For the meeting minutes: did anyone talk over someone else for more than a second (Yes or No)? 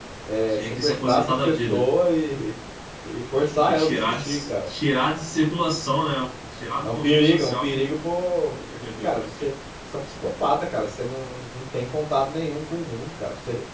Yes